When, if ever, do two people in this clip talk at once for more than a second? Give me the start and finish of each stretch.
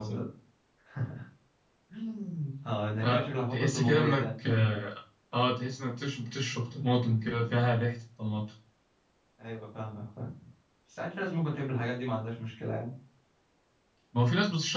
3.0-4.2

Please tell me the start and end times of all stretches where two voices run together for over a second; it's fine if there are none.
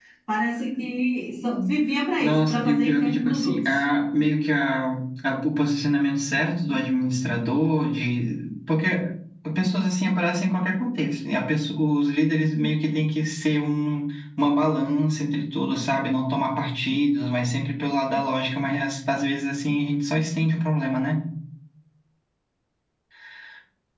2.2-3.8

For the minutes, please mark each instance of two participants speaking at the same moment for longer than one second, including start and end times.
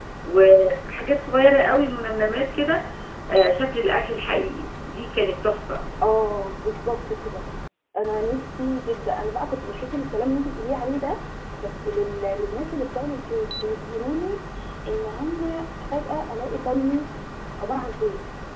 none

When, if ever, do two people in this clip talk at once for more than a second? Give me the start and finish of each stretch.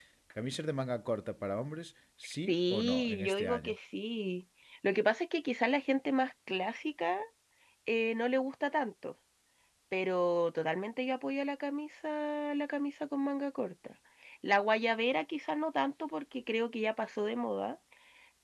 2.5-3.7

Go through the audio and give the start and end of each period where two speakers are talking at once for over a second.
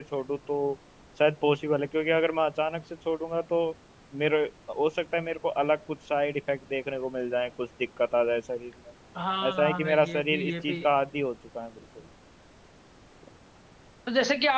9.5-10.8

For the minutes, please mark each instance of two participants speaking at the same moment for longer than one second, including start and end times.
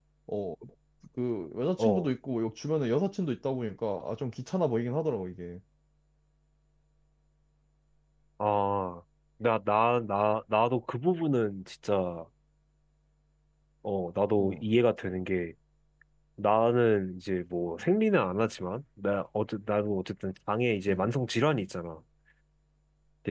none

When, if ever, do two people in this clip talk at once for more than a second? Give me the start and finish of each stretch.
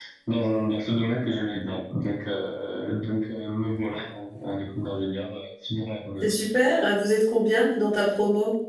none

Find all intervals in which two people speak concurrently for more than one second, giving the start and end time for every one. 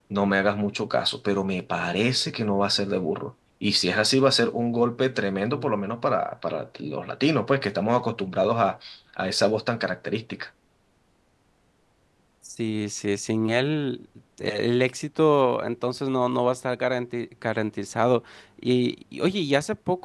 none

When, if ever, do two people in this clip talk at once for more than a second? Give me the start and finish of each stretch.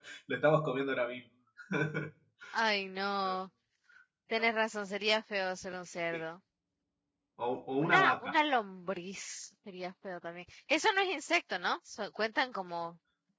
none

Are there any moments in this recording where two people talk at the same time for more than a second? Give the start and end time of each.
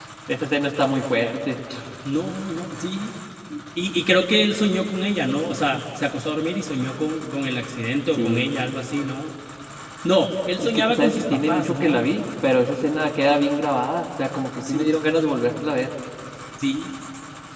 10.6-12.0

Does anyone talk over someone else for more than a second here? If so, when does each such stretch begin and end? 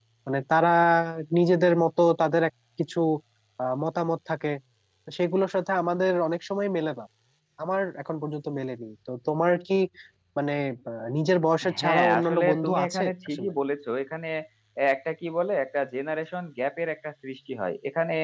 11.8-13.5

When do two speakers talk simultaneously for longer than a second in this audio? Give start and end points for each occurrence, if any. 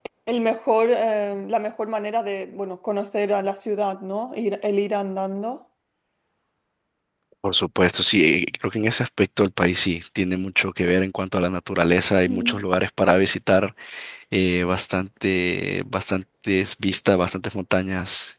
none

